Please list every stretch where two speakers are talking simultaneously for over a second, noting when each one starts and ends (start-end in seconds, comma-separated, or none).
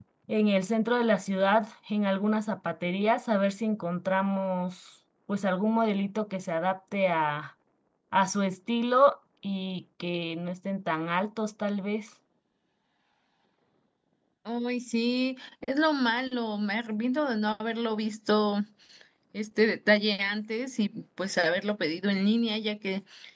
none